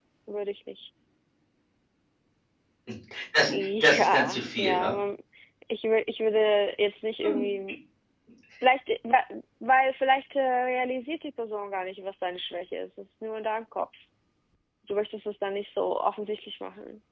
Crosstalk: present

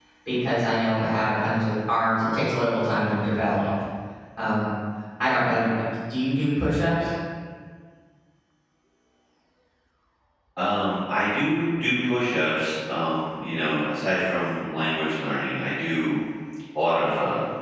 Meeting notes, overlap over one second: none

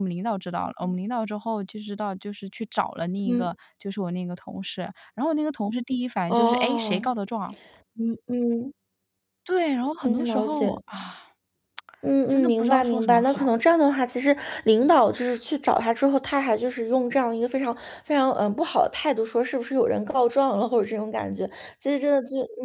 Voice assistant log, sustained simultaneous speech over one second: present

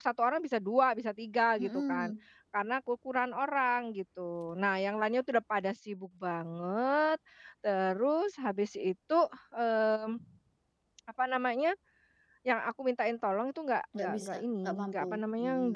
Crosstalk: present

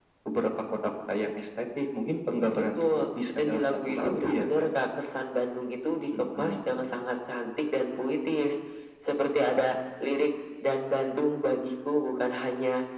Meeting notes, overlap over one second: present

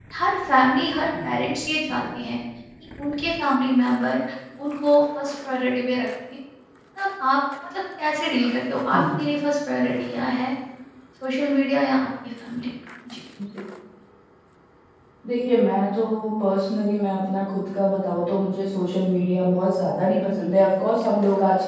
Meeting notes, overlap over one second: none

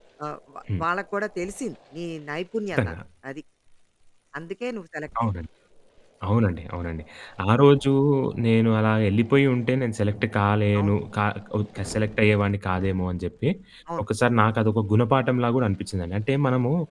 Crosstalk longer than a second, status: none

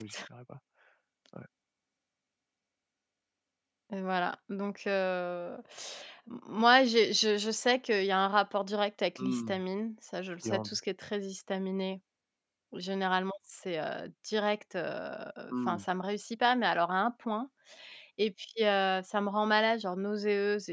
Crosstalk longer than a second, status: none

